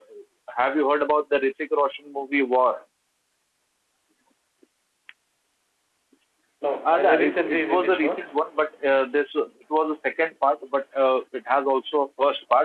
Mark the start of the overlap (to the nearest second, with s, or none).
7 s